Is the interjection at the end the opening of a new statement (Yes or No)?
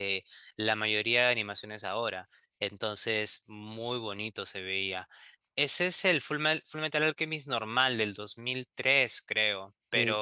No